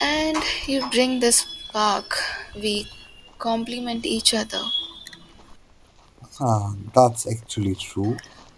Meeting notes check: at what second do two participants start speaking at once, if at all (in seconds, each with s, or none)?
none